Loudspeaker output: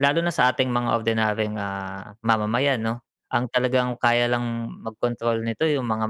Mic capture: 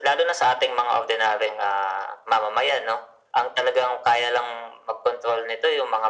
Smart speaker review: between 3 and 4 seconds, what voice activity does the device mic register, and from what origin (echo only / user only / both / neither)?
echo only